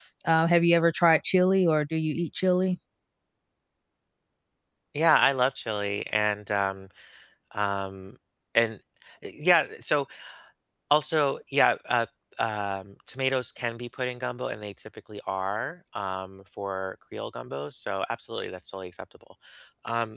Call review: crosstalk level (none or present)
none